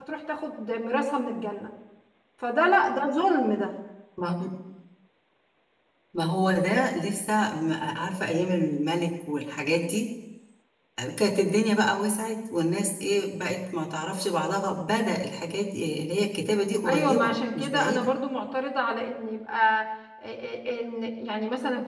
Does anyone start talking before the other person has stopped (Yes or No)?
Yes